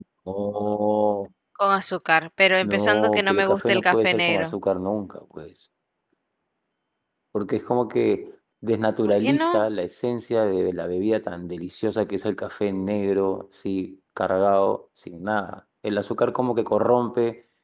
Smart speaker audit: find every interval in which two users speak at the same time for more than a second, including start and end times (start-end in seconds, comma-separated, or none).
2.6-4.5